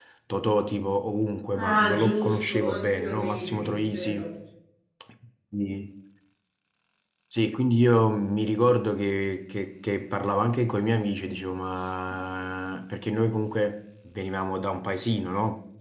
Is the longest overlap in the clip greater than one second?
Yes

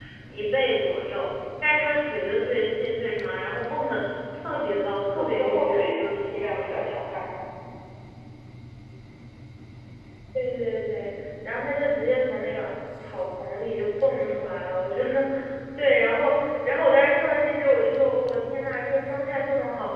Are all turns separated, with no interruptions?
No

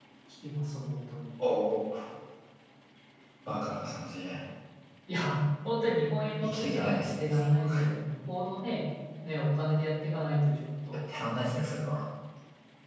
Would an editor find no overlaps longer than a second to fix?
No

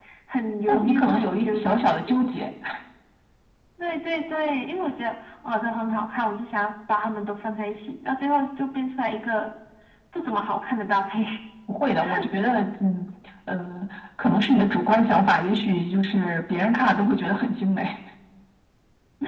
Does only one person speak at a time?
No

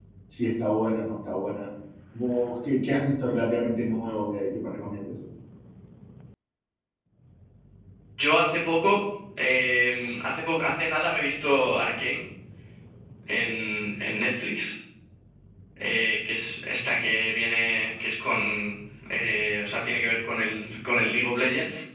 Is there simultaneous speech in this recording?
No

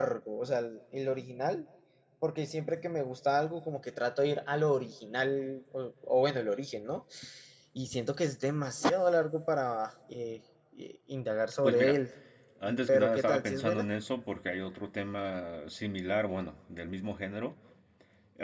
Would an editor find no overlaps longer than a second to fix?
No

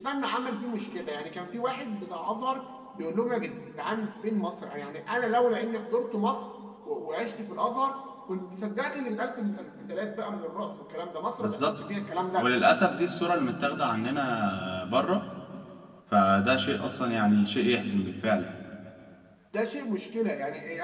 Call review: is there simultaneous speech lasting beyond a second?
No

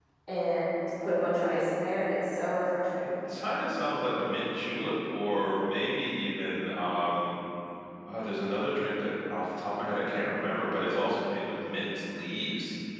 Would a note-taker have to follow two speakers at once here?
No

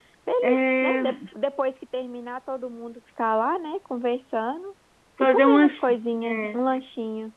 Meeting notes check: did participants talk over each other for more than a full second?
Yes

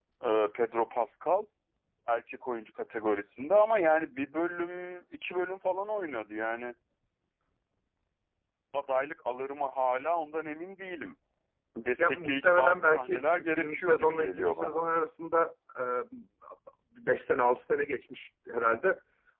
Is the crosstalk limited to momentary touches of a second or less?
No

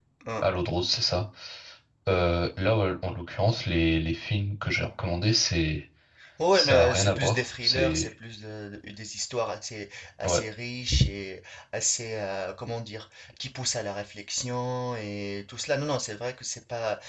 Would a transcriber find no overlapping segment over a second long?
No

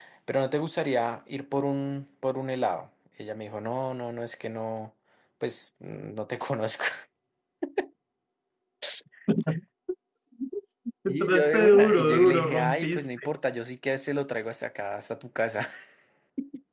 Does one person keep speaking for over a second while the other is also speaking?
Yes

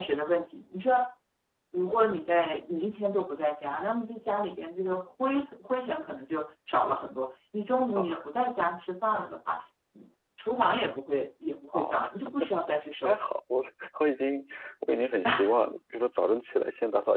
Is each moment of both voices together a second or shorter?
Yes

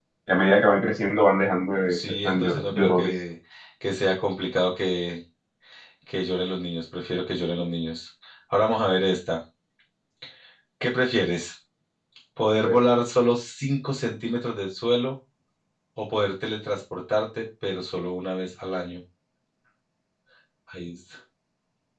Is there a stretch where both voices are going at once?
Yes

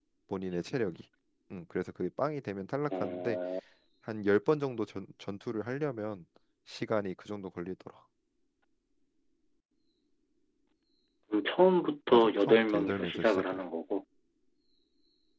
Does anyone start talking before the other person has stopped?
Yes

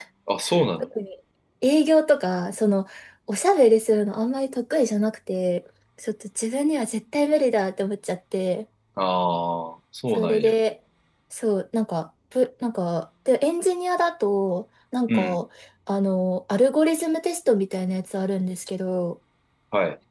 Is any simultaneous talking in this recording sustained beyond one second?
No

